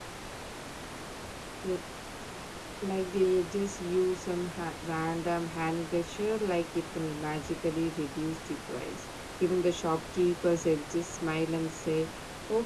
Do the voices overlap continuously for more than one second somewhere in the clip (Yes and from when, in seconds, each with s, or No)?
No